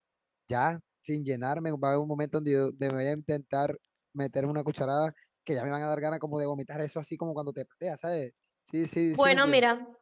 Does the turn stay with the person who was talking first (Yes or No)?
No